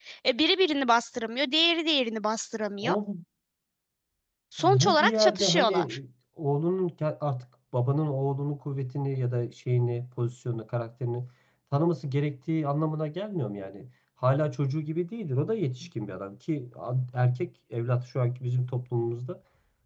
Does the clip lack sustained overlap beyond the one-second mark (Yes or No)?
No